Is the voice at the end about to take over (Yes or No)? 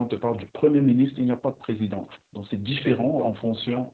No